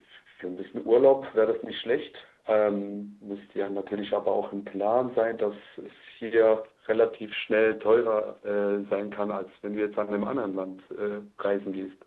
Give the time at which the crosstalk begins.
none

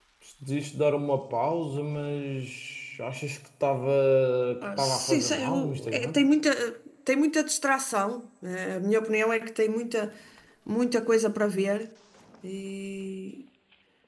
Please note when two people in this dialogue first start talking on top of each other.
4.6 s

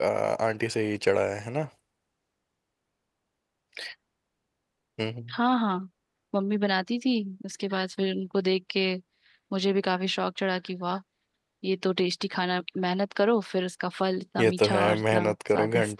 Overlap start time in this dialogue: 14.4 s

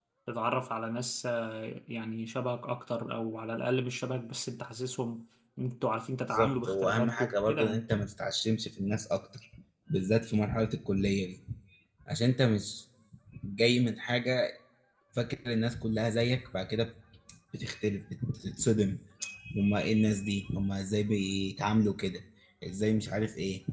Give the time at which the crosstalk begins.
6.3 s

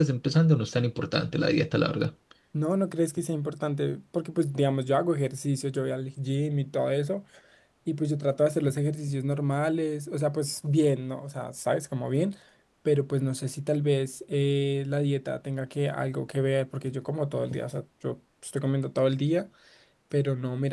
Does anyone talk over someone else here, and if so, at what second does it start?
none

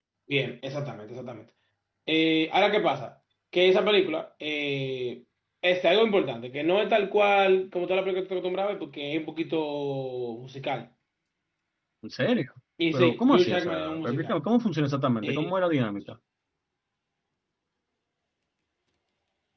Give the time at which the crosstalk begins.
12.9 s

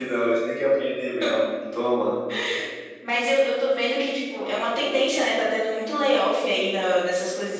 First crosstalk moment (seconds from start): none

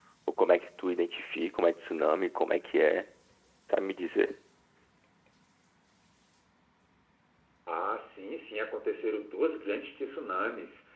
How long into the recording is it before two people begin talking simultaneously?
none

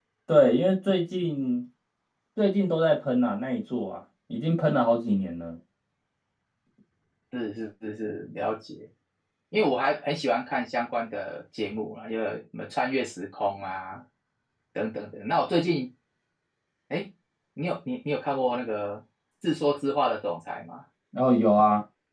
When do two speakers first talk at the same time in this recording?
none

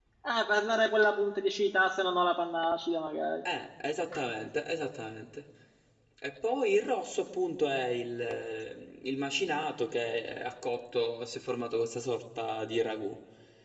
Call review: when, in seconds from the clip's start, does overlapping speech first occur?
none

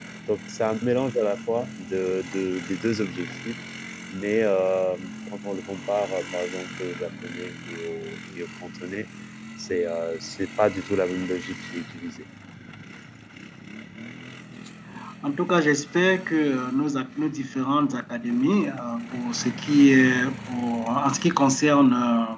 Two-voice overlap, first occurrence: none

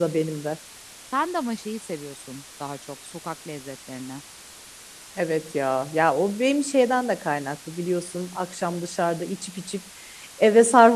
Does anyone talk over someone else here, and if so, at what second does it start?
none

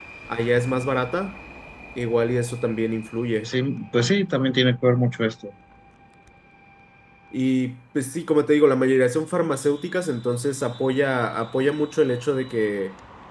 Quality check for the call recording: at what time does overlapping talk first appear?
none

